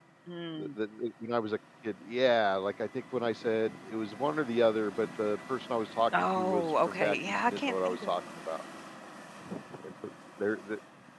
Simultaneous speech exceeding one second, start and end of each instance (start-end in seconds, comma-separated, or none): 6.4-8.1